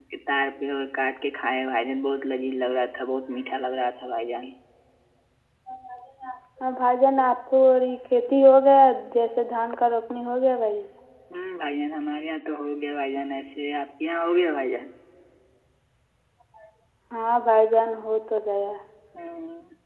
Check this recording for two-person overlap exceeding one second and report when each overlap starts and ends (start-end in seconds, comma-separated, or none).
none